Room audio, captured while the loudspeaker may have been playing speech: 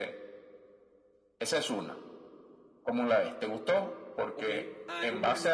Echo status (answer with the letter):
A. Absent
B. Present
B